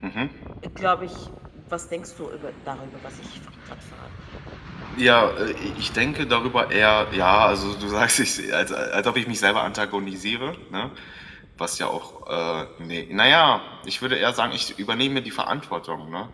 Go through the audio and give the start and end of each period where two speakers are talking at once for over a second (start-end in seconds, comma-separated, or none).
none